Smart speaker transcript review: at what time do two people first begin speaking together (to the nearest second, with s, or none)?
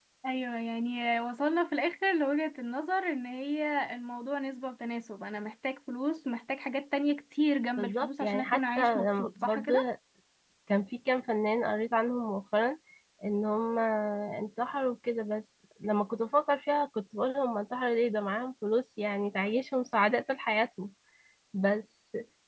8 s